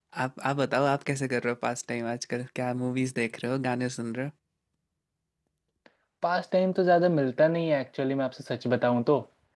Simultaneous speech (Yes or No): No